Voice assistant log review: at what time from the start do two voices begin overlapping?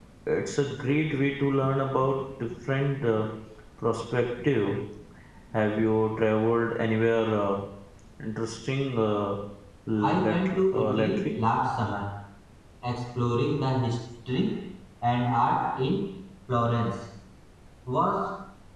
10.0 s

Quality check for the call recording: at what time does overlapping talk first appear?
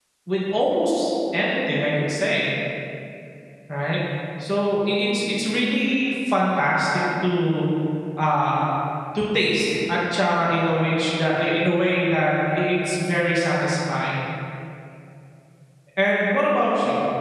none

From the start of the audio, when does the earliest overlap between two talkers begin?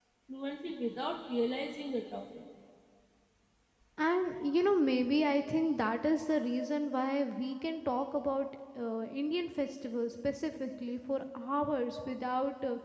none

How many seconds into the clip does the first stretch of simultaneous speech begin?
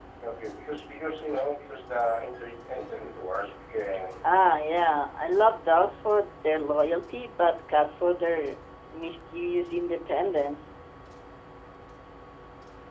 none

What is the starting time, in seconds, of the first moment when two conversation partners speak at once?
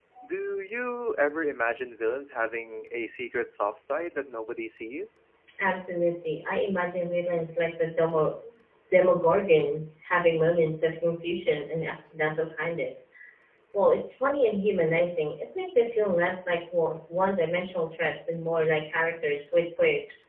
none

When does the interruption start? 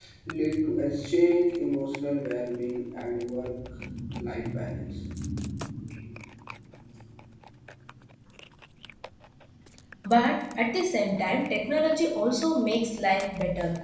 none

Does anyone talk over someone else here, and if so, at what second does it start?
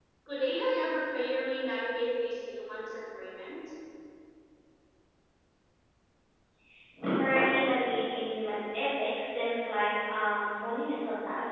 none

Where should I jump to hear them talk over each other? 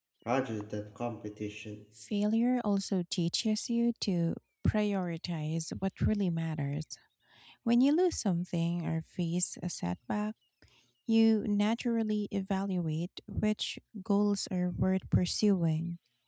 none

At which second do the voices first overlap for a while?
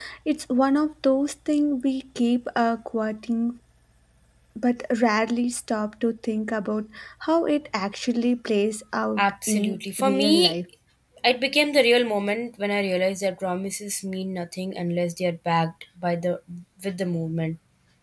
9.2 s

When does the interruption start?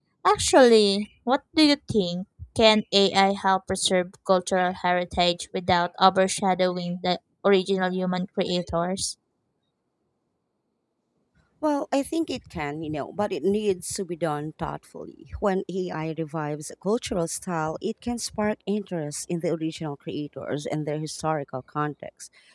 none

